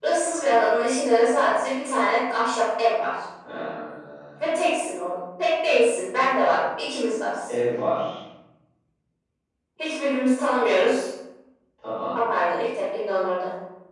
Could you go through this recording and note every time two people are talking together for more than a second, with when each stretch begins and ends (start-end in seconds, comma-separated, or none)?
none